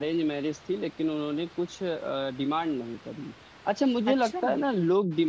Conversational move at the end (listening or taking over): listening